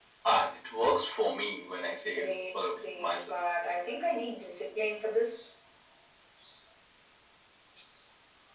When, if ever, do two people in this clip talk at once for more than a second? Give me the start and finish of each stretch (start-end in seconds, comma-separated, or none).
2.1-3.4